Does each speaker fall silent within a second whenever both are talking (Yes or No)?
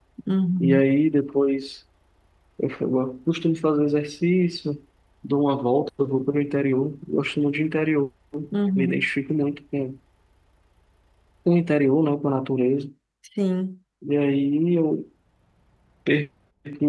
Yes